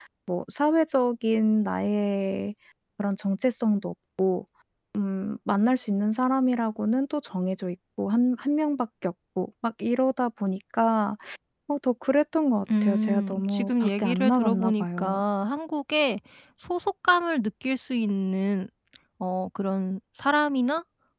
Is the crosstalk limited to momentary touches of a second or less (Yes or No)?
No